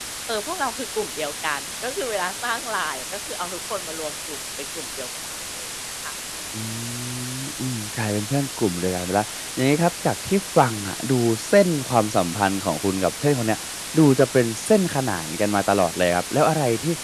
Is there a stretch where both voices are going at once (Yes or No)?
No